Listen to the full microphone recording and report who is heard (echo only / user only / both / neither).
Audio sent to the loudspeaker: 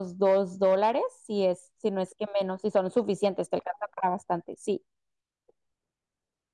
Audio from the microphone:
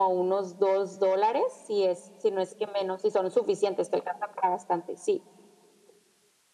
echo only